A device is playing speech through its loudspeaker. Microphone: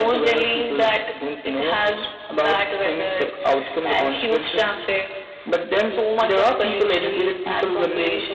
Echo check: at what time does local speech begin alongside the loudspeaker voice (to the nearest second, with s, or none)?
none